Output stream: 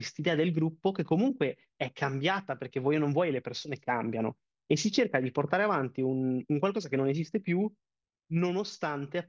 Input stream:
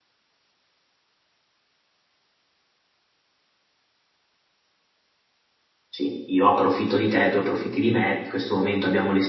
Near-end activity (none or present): present